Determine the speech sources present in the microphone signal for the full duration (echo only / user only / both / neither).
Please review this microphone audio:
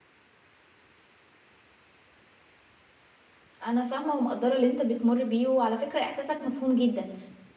user only